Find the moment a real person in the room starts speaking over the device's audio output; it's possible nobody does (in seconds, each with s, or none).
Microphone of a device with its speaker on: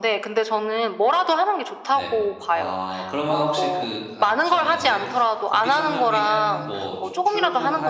1.9 s